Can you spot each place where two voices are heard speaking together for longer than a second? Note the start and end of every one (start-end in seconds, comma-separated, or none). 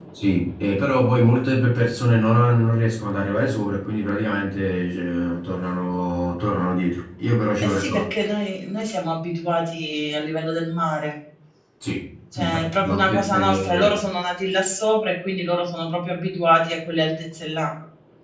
12.4-13.9